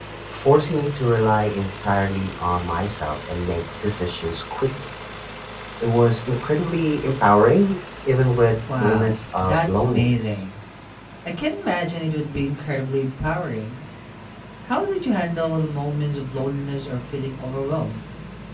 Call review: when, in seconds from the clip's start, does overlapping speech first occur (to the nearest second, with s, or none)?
9 s